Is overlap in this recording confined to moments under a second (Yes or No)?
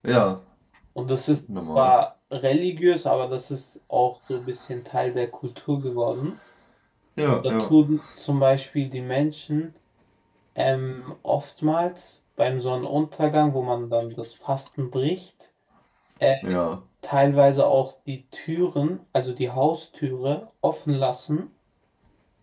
Yes